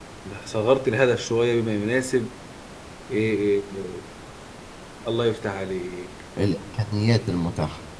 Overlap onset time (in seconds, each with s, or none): none